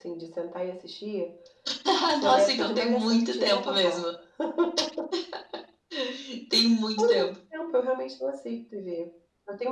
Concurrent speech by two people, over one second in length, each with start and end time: 2.2-4.0

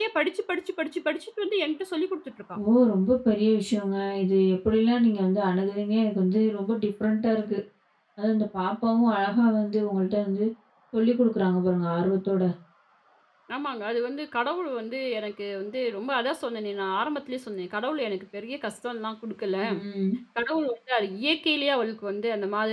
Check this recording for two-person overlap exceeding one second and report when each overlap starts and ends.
none

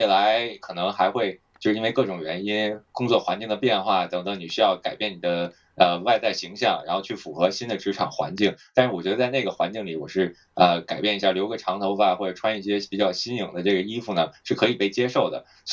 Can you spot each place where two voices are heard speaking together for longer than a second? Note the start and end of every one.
none

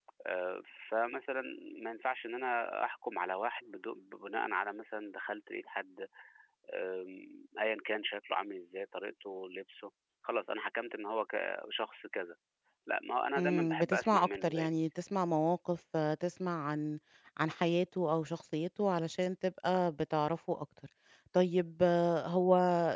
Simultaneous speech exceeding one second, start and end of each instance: 13.4-14.8

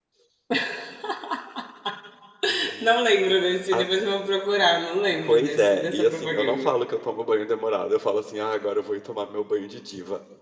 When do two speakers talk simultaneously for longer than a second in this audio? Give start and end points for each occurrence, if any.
5.3-6.7

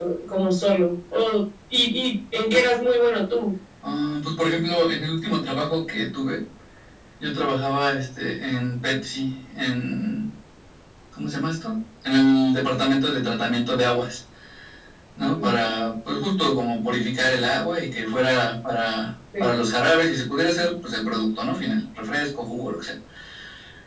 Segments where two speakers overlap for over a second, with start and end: none

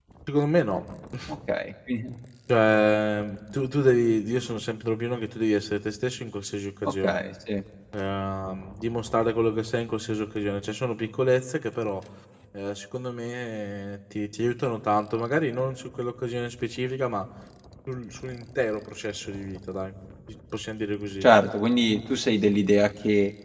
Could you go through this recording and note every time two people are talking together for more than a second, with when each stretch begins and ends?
none

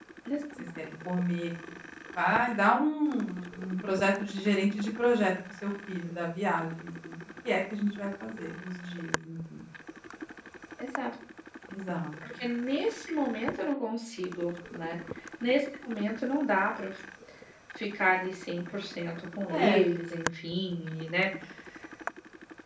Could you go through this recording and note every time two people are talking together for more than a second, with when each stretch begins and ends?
none

